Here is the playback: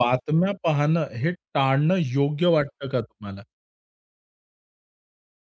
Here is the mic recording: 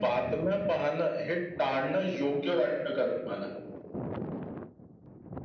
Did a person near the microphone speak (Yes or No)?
No